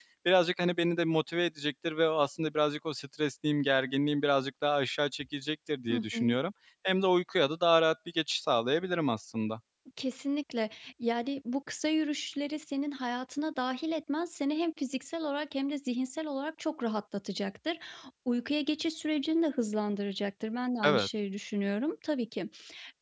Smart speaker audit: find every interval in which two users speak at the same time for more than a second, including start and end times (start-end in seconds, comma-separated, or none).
none